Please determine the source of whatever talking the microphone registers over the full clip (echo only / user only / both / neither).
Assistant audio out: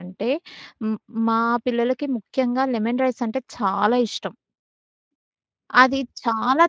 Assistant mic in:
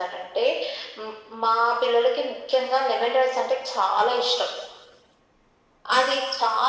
echo only